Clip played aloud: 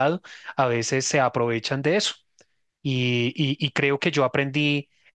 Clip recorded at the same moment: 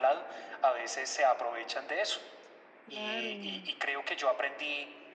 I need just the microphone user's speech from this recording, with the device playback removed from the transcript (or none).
claro.